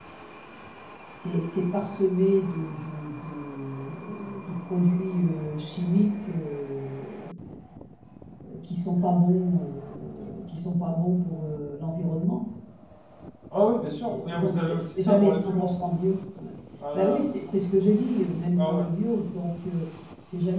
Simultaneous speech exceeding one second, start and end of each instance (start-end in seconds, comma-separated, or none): 14.1-15.7